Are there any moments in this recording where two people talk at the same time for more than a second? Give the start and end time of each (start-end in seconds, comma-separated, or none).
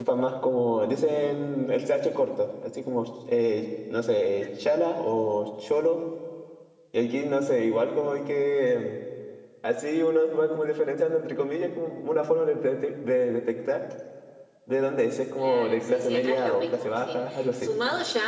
15.4-17.7